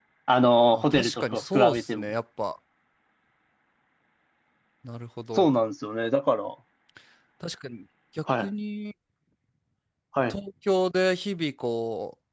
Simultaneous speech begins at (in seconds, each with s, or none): 0.7 s